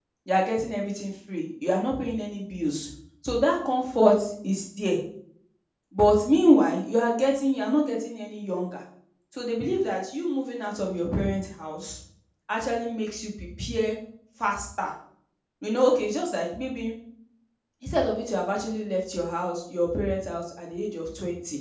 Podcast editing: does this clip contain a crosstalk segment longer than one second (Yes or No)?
No